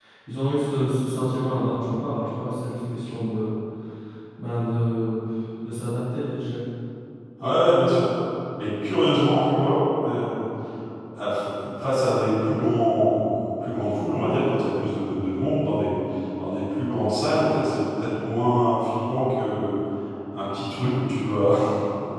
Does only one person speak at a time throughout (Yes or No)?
Yes